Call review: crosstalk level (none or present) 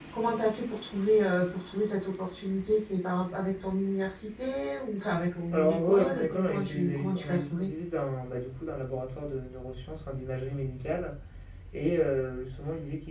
present